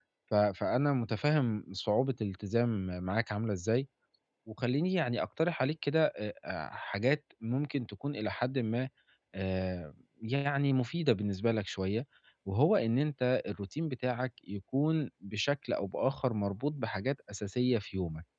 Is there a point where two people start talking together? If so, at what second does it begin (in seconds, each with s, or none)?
none